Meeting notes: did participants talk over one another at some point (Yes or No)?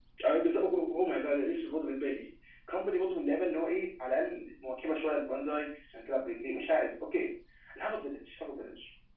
No